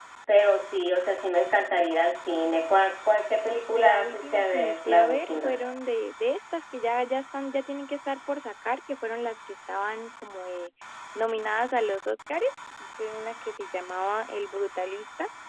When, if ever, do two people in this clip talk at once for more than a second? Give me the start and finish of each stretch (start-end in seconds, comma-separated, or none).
3.8-5.5